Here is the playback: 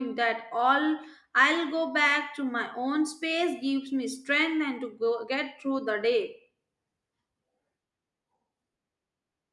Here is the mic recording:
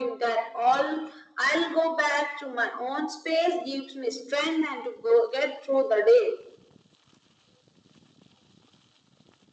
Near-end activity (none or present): none